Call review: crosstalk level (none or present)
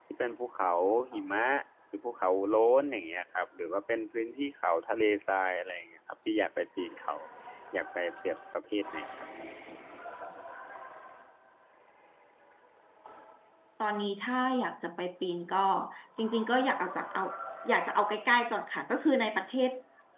none